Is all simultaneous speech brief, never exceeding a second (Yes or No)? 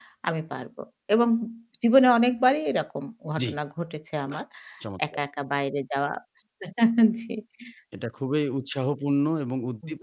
Yes